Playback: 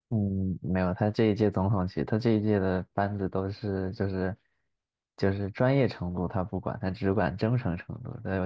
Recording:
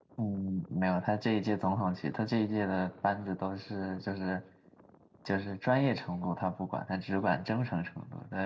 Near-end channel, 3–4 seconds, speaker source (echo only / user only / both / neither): echo only